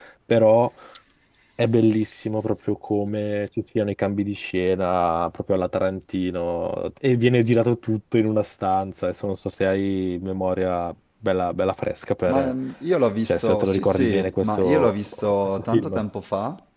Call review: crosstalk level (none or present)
present